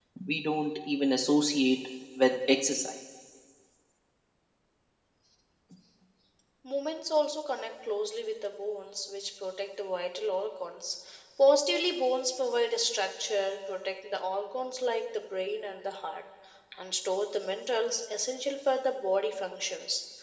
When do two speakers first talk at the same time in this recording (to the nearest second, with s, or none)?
none